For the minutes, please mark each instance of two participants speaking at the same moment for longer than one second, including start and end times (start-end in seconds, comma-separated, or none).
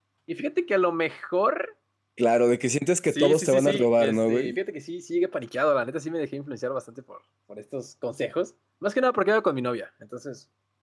3.1-4.6